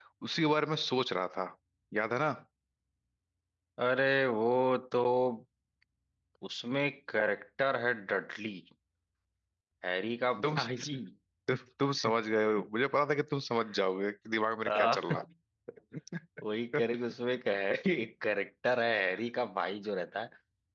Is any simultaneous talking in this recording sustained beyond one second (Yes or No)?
No